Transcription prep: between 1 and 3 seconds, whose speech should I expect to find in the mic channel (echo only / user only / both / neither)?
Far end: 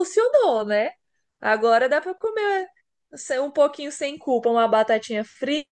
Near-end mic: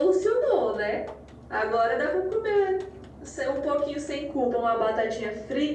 echo only